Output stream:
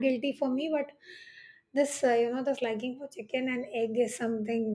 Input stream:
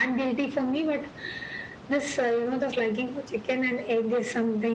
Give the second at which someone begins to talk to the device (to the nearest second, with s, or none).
none